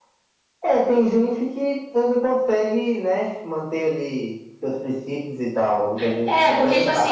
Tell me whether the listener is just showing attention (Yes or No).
No